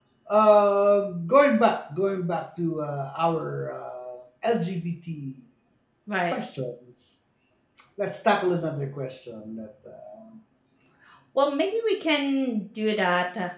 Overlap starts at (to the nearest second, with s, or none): none